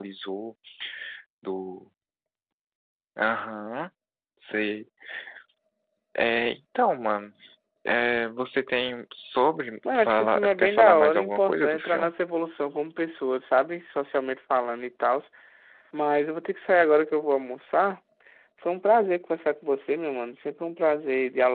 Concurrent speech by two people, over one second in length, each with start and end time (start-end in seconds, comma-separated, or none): 9.9-12.1